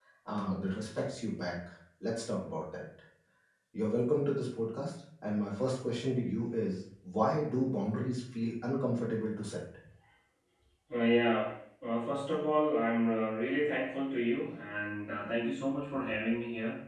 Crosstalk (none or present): none